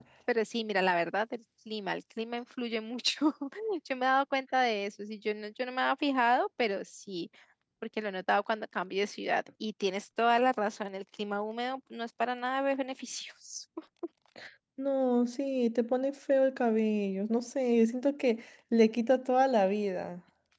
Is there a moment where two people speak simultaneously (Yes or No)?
No